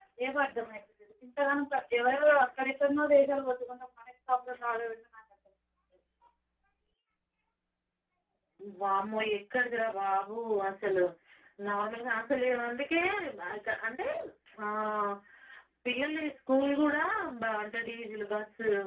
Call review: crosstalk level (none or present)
none